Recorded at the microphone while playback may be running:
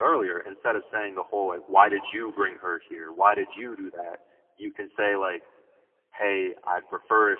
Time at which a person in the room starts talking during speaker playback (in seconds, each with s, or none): none